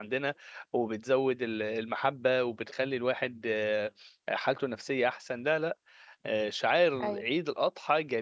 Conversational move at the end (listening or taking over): listening